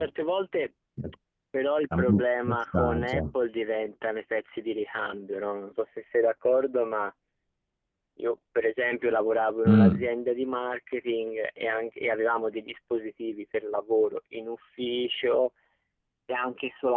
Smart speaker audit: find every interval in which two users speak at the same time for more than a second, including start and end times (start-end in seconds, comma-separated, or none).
2.0-3.2